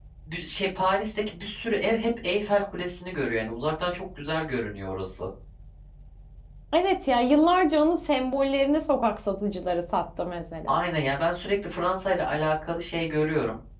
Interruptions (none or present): none